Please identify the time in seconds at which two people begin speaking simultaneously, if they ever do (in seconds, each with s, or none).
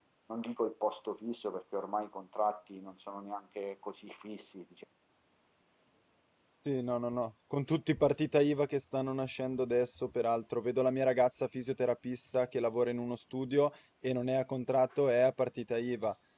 none